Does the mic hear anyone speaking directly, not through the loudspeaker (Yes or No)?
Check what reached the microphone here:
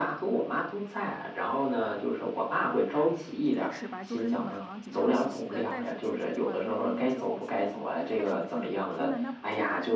Yes